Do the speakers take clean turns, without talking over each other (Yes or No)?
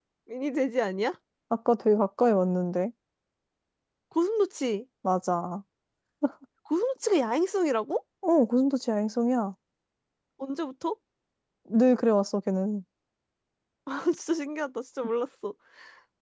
Yes